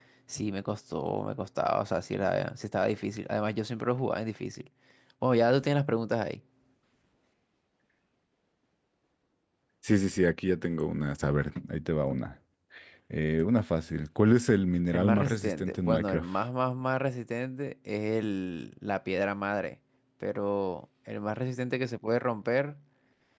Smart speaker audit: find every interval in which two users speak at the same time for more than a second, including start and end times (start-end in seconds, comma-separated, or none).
14.9-16.2